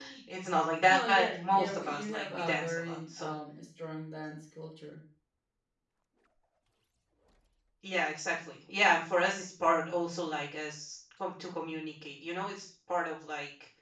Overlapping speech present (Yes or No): Yes